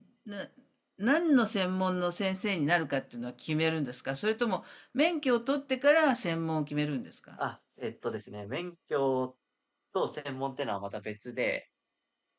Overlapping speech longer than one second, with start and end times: none

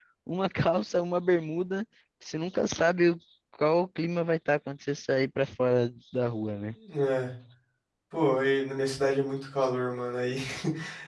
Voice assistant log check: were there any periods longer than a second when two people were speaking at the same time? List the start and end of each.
none

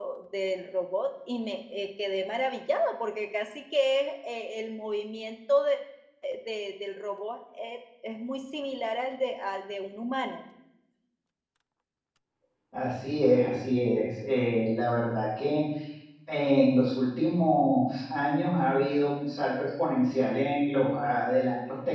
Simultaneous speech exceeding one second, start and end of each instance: none

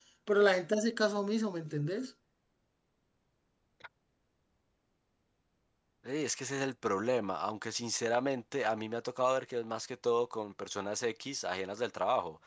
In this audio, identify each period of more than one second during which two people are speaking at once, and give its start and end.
none

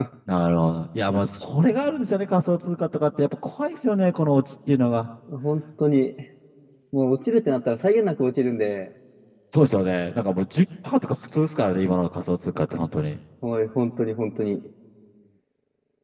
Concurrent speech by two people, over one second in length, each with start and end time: none

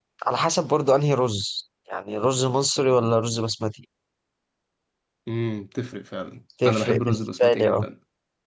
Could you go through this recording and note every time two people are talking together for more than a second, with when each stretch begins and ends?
6.7-7.8

